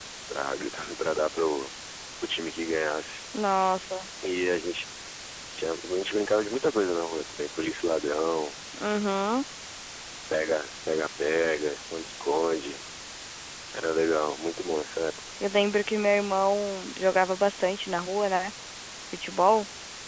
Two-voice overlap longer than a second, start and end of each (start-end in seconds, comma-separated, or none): none